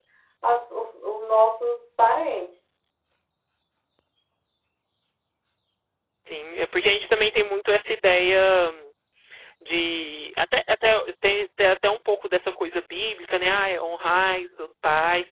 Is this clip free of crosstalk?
Yes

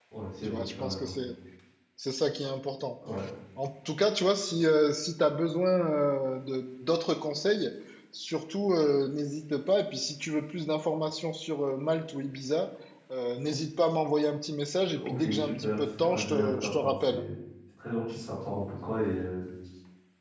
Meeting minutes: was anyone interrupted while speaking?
Yes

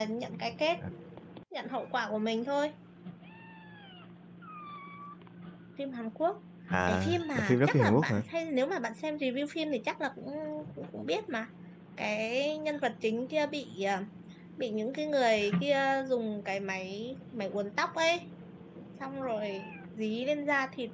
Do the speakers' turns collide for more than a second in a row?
Yes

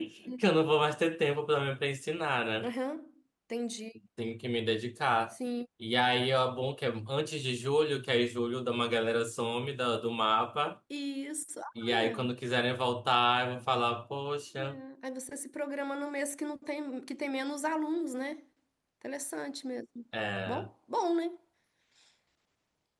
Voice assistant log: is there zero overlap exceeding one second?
Yes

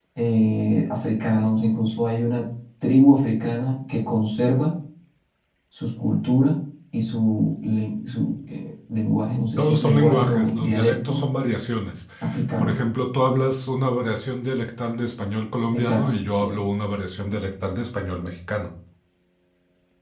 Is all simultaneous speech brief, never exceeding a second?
No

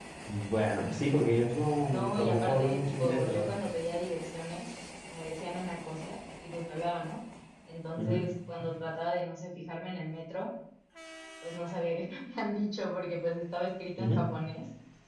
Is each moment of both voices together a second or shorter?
No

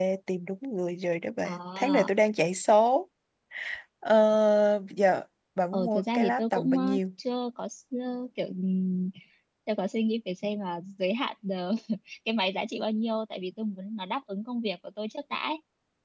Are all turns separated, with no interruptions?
No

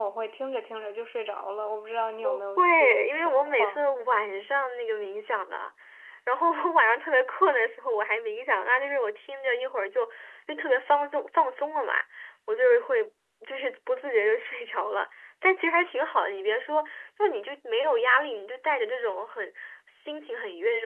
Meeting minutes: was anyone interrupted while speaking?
Yes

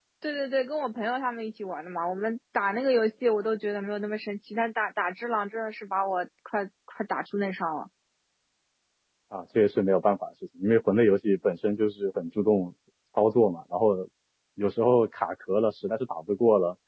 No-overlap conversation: Yes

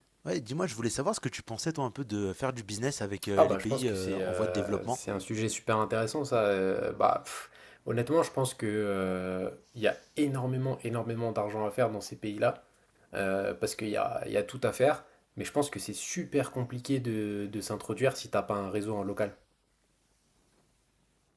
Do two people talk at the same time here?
Yes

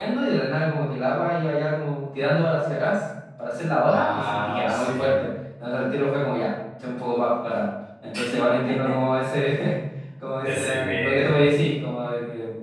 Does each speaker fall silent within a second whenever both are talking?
No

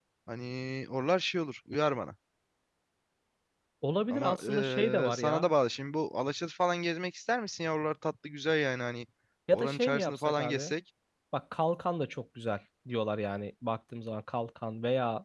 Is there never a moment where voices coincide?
No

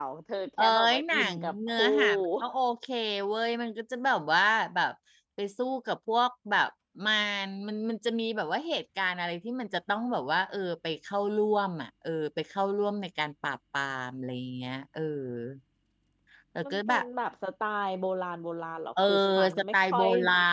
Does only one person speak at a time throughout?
No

